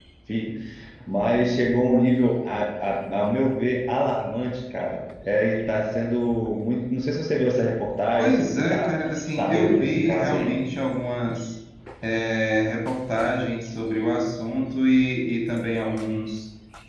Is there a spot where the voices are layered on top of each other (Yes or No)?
Yes